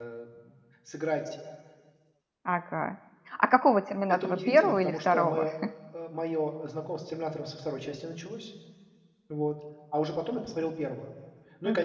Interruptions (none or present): present